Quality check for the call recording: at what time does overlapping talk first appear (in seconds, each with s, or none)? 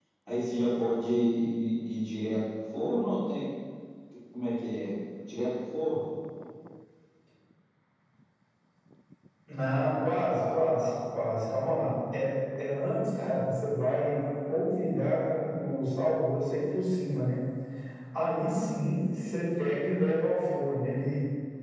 none